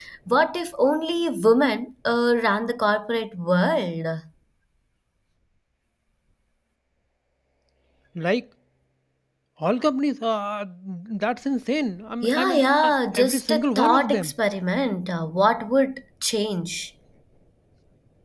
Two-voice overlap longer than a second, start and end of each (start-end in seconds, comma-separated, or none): 12.2-14.3